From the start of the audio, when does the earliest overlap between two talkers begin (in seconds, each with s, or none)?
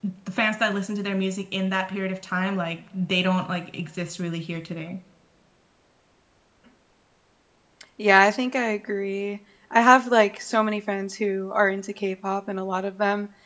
none